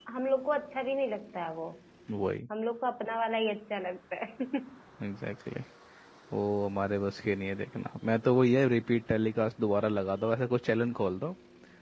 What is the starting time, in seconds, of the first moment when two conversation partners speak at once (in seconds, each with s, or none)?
none